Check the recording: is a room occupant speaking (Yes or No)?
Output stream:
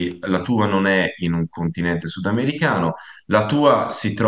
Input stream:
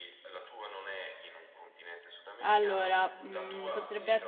Yes